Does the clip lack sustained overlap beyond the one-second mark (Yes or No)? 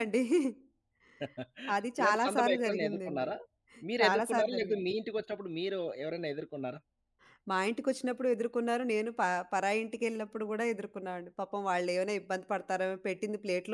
No